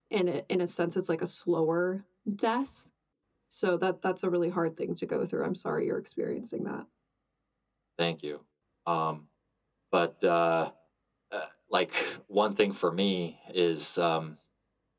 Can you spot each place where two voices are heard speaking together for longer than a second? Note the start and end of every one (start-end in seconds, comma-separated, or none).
none